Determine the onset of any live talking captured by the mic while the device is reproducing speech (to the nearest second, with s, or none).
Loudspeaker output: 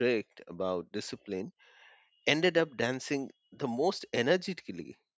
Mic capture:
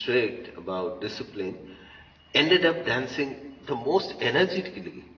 none